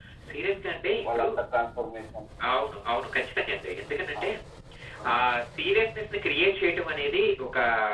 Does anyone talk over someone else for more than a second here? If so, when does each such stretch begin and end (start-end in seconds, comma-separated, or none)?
none